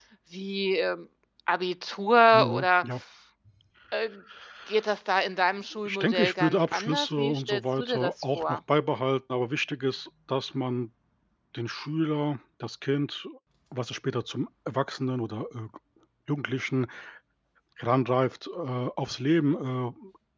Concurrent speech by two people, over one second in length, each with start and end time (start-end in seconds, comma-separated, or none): 5.8-8.6